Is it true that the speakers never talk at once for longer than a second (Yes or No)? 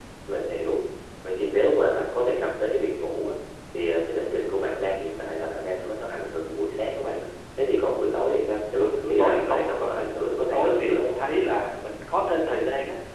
No